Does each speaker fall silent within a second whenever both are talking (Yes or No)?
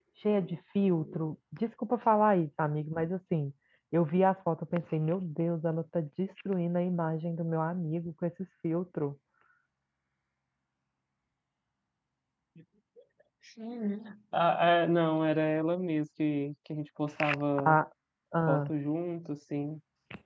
Yes